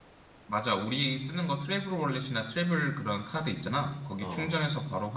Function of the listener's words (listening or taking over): listening